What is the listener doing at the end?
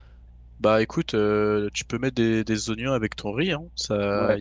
taking over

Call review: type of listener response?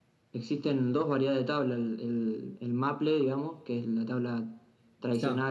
listening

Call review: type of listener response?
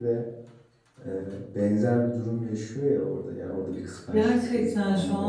taking over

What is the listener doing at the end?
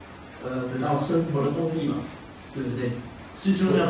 listening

